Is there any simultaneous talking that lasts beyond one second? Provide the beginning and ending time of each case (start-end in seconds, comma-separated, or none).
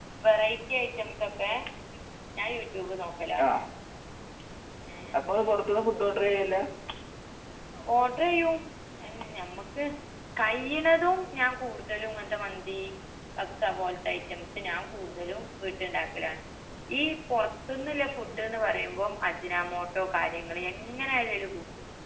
none